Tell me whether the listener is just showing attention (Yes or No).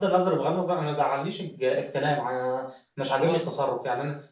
Yes